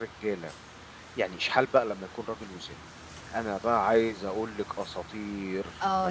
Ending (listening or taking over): taking over